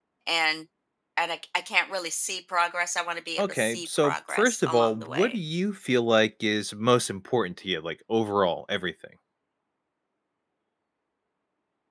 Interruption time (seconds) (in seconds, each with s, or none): 3.4 s